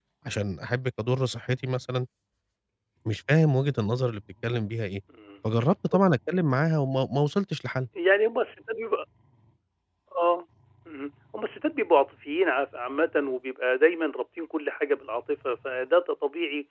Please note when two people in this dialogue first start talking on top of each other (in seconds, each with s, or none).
none